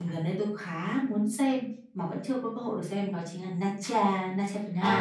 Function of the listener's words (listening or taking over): taking over